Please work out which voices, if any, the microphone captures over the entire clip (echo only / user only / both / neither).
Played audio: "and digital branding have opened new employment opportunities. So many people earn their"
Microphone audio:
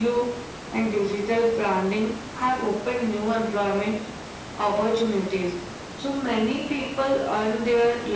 echo only